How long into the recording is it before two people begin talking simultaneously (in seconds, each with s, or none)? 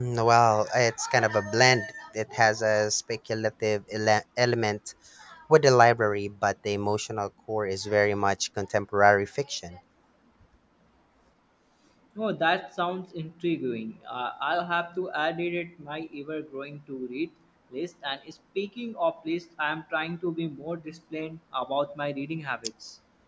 none